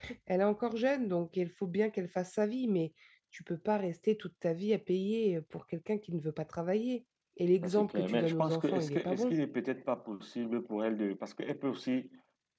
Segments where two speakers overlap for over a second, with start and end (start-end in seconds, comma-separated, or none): 7.6-9.3